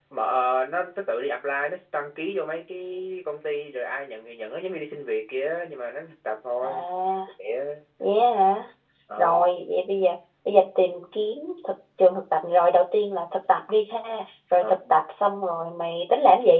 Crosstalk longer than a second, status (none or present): none